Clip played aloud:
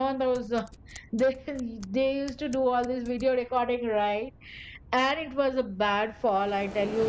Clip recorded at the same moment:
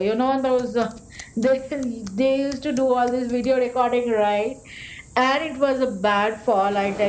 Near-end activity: none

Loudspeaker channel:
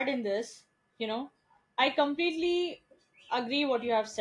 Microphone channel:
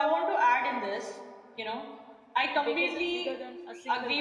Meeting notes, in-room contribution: present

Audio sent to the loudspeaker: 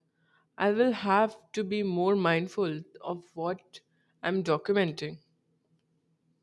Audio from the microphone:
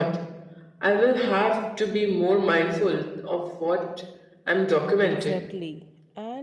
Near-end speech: present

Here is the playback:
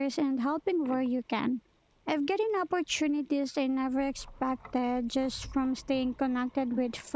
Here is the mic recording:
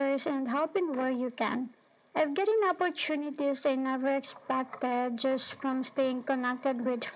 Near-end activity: none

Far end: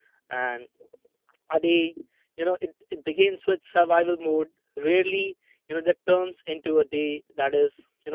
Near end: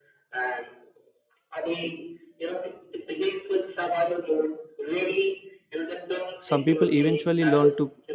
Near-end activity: present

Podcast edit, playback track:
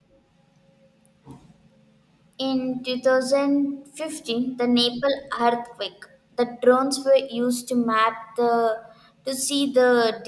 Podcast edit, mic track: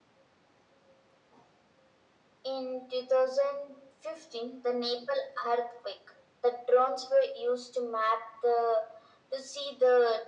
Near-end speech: none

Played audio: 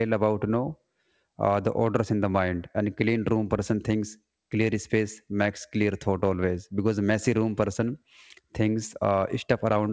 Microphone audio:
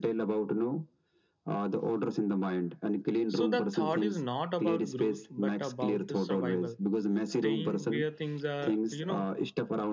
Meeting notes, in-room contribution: present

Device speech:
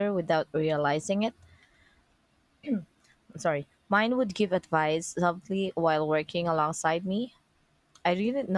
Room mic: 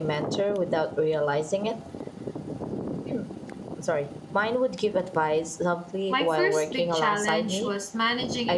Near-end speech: present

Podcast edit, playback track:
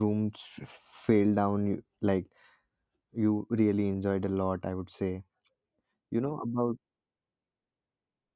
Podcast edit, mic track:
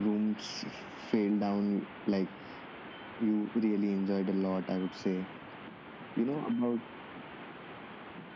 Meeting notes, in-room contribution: none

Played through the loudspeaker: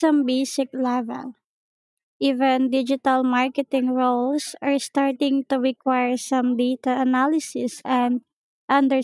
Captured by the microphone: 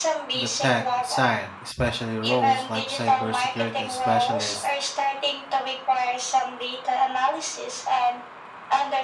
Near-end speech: present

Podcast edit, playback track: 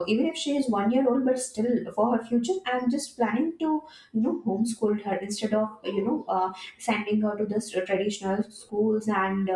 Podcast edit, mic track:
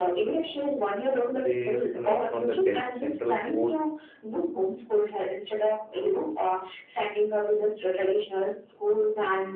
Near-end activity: present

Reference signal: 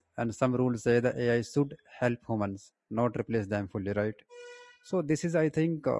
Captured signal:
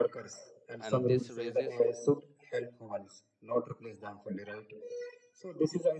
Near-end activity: present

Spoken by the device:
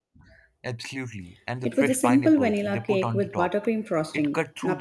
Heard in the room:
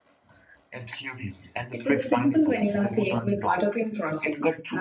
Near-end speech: none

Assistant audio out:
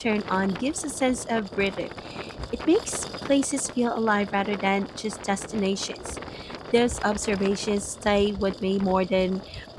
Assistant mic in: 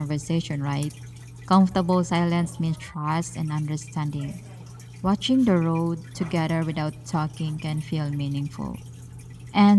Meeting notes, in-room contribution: present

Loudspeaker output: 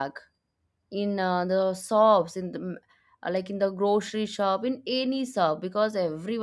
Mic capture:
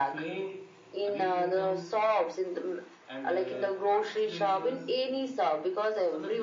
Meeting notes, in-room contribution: present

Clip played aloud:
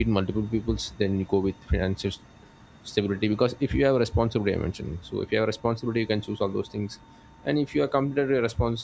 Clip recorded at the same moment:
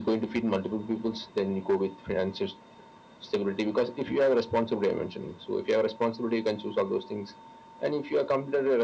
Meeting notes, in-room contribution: none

